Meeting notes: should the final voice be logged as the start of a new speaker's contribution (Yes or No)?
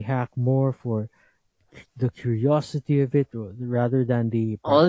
Yes